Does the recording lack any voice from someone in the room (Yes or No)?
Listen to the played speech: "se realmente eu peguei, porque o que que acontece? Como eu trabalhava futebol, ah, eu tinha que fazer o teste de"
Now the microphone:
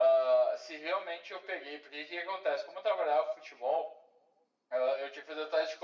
Yes